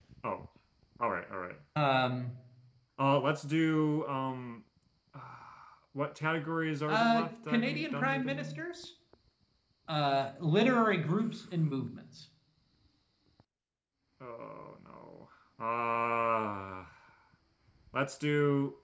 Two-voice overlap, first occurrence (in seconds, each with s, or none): 6.9 s